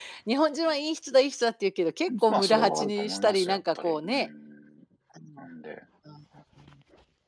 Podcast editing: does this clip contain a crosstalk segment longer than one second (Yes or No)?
Yes